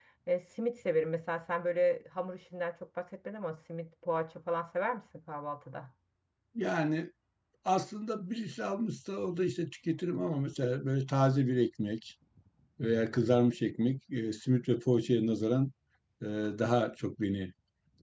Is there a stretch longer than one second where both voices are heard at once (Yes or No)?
No